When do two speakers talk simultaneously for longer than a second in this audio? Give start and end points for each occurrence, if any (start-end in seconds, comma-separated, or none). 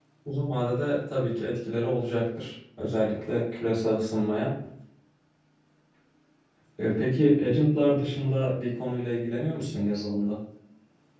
none